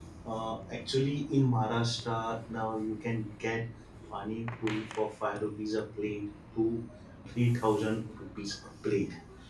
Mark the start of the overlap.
none

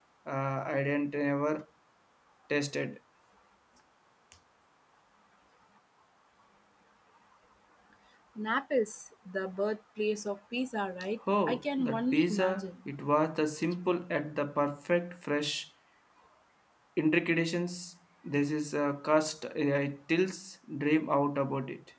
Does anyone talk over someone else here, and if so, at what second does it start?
11.3 s

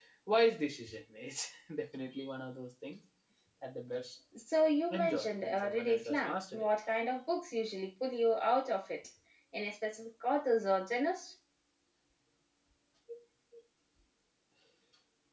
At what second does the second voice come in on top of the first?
4.9 s

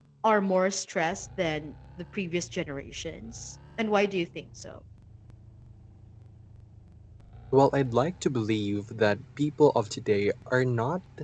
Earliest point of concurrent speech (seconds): none

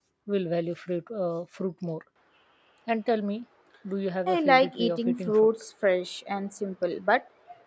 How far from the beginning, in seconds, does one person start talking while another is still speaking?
4.3 s

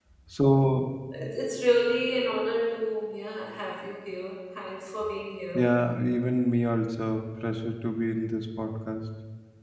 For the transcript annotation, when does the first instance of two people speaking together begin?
none

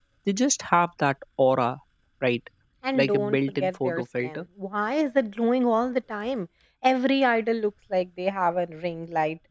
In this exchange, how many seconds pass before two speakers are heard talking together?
3.0 s

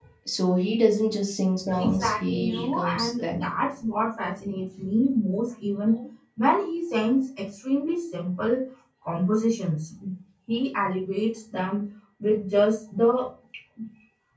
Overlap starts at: 1.7 s

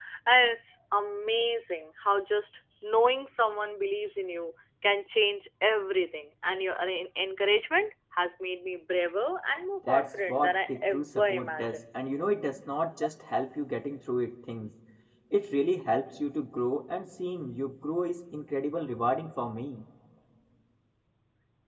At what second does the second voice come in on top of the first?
9.8 s

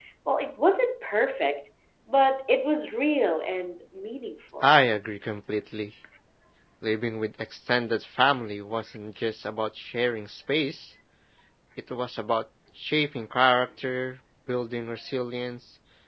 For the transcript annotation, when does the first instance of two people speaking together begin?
none

